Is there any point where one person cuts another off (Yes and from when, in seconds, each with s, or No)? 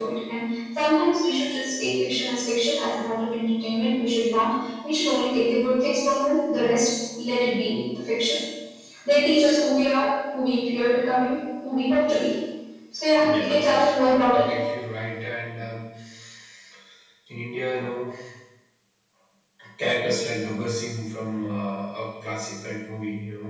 Yes, from 13.2 s